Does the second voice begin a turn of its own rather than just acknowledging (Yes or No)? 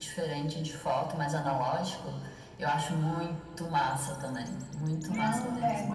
Yes